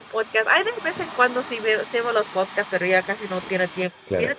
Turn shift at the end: Yes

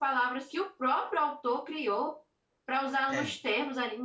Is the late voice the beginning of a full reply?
No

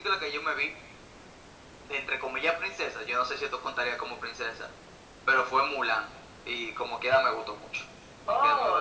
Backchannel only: No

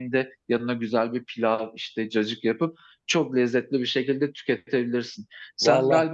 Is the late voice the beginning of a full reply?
No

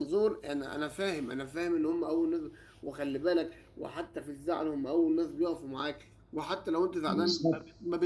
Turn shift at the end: No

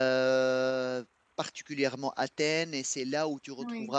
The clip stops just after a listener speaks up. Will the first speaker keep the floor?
Yes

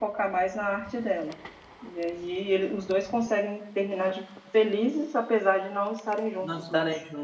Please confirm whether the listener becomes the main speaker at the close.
Yes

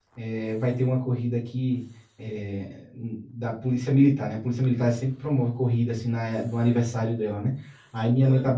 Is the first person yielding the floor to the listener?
No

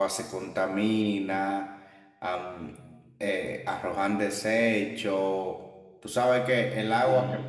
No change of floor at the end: Yes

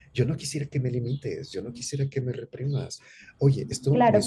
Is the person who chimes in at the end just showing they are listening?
No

